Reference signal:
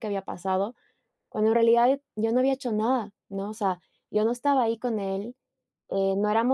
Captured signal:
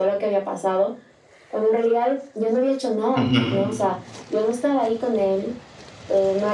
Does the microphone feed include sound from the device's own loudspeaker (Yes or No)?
Yes